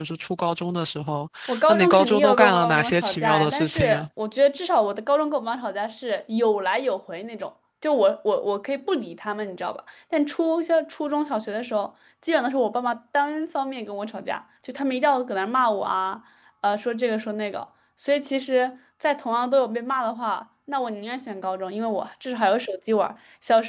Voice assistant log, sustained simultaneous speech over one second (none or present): present